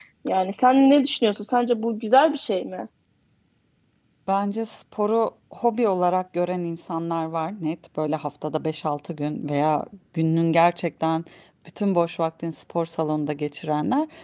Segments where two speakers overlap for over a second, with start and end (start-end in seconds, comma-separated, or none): none